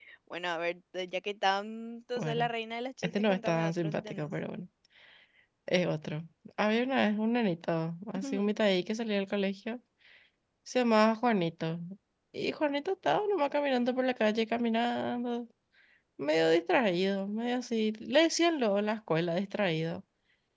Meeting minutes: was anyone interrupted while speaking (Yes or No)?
Yes